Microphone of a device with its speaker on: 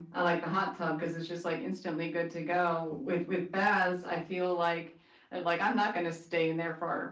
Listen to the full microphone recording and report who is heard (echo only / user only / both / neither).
echo only